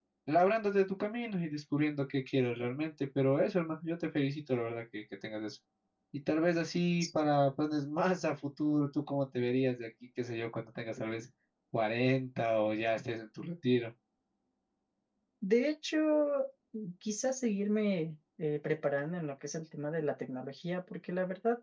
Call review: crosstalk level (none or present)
none